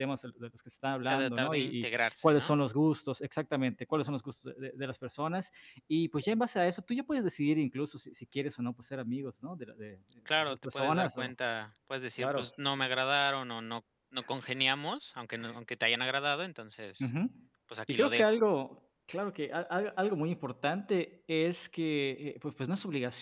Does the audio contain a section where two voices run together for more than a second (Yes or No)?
Yes